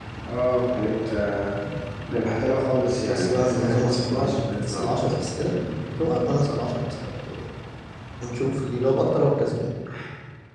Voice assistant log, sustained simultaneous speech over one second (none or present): present